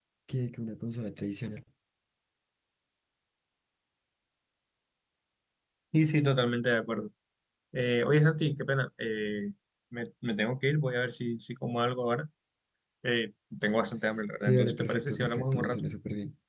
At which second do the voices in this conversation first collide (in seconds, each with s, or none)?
14.4 s